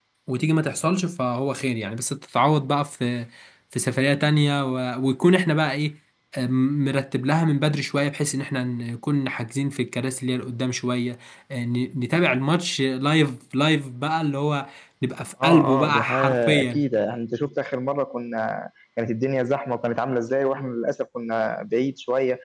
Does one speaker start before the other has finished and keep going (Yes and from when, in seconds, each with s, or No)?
Yes, from 15.4 s